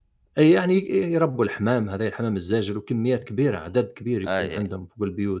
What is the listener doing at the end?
listening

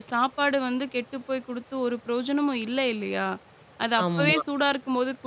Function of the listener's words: listening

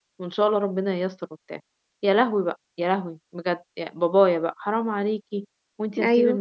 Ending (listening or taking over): listening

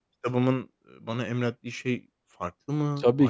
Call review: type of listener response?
taking over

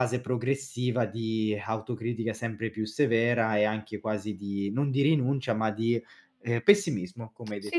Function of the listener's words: taking over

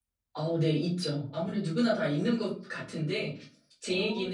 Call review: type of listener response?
listening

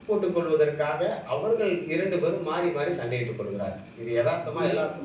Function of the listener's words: taking over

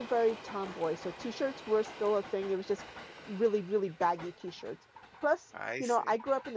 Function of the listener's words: listening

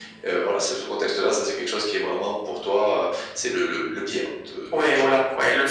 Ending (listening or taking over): taking over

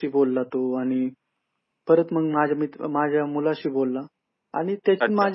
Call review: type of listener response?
listening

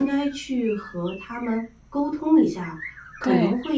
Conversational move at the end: listening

